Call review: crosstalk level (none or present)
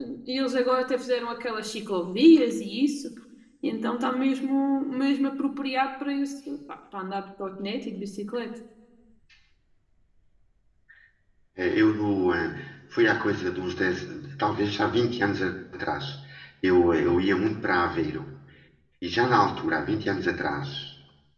none